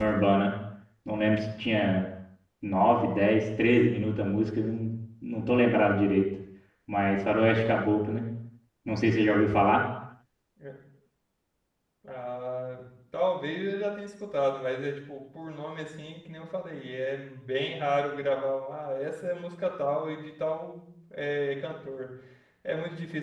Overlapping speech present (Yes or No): No